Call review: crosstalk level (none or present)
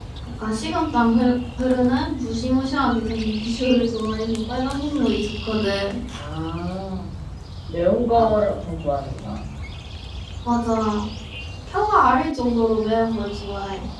none